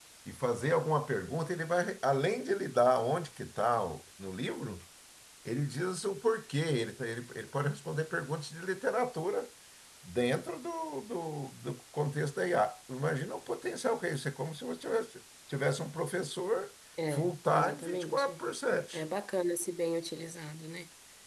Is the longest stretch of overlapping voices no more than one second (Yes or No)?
No